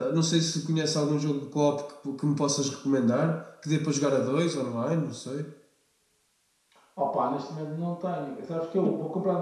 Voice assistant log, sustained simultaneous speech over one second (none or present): none